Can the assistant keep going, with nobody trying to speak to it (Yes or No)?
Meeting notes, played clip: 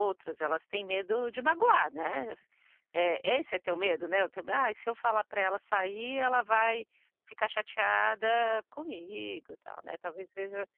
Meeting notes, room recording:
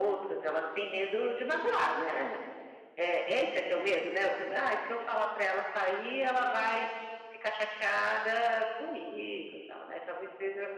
Yes